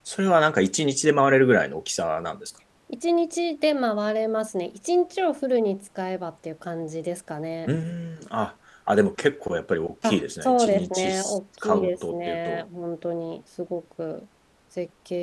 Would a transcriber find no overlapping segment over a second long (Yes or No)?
No